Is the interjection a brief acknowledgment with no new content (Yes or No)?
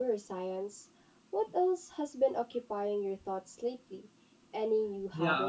No